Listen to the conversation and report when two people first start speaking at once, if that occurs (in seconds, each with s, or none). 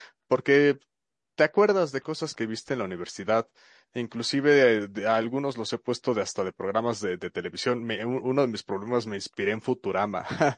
none